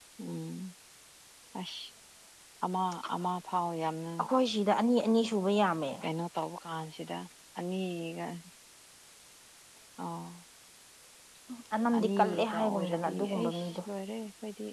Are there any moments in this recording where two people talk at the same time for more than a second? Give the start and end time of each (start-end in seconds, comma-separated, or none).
12.0-13.8